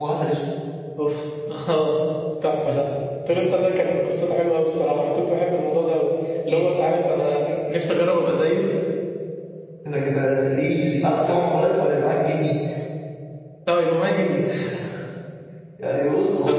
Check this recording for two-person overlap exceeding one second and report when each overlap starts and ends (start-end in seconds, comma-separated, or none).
none